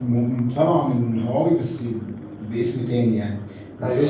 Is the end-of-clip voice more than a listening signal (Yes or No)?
No